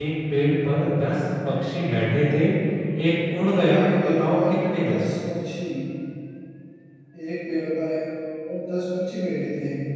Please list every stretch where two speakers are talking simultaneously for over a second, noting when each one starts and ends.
3.7-5.1

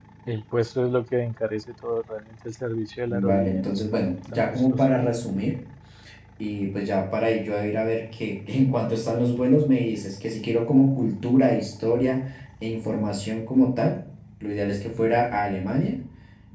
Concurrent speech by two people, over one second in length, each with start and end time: 3.1-4.8

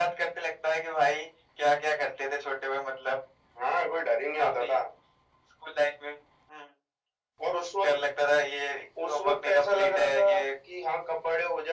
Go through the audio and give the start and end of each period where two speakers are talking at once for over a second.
9.1-10.4

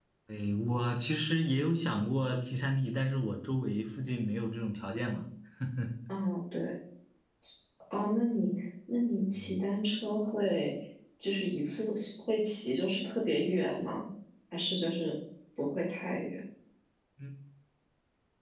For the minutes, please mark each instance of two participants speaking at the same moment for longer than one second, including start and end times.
none

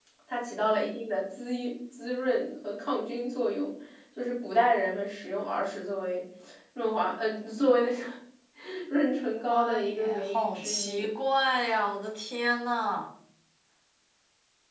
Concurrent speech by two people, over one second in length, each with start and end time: 9.3-11.1

